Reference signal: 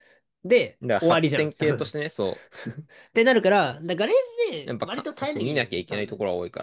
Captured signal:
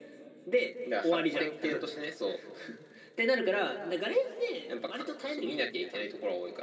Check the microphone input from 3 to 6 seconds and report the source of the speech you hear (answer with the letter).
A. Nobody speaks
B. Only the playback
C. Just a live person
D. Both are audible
B